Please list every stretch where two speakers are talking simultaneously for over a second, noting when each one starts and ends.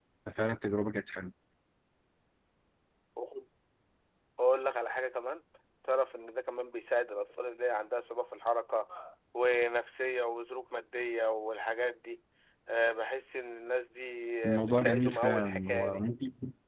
14.4-16.1

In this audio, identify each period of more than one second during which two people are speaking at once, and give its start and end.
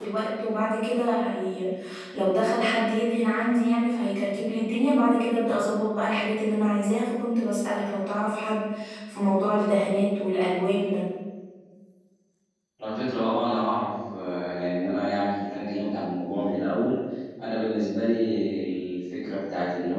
none

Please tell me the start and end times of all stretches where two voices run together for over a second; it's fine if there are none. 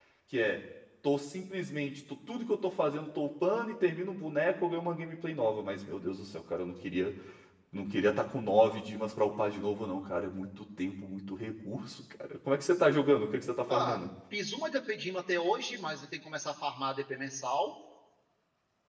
none

